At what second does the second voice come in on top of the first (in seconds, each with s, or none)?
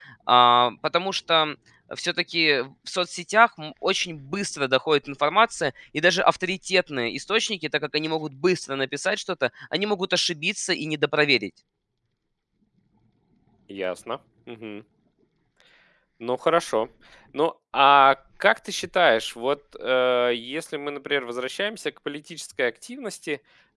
none